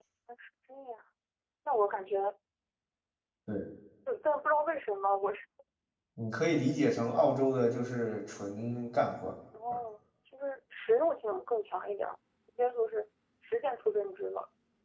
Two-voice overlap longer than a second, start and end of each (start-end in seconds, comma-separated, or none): none